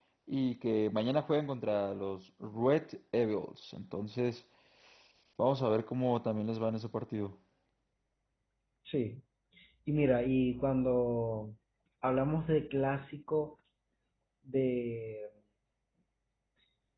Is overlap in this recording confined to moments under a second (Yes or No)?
Yes